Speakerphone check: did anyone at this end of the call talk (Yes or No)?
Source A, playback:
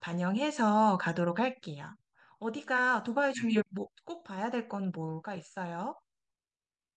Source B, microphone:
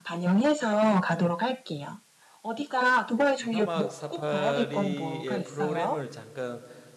Yes